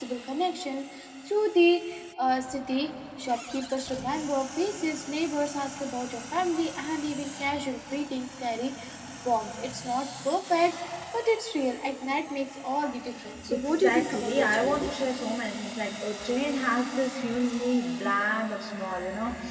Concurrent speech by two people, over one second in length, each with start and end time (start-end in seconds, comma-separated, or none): 13.5-14.8